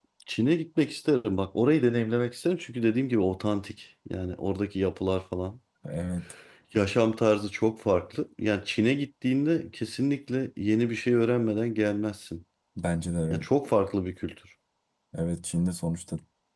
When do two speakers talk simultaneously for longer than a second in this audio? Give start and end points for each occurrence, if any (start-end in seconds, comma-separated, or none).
none